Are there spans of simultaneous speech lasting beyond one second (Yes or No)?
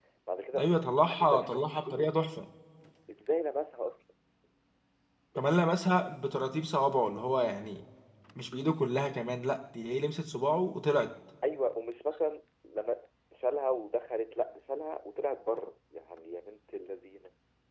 Yes